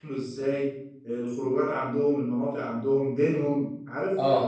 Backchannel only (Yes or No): Yes